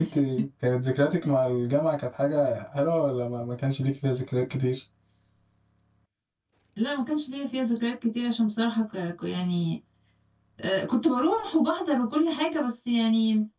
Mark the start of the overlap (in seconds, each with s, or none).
none